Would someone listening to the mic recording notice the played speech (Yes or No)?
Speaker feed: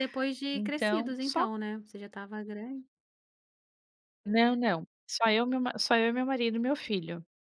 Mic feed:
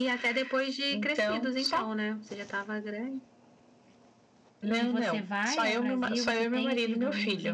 Yes